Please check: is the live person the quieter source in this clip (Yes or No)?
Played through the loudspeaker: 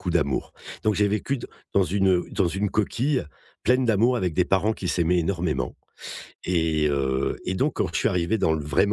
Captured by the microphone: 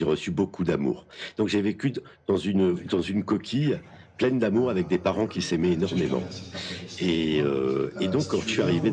Yes